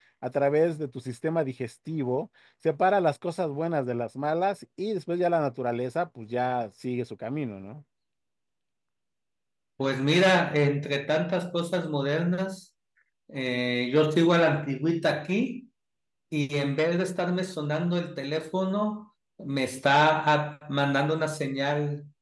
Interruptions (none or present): none